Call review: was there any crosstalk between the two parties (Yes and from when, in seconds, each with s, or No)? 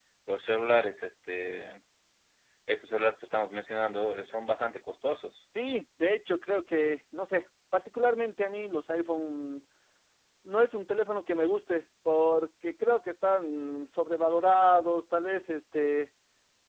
No